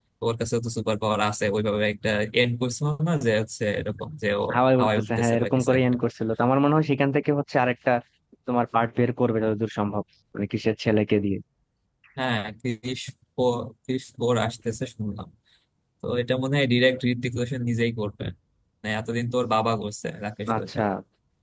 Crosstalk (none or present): present